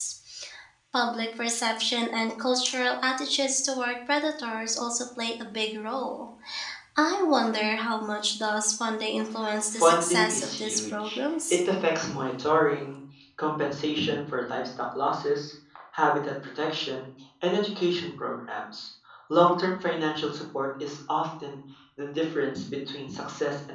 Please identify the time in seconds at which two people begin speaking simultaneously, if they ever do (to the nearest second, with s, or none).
10 s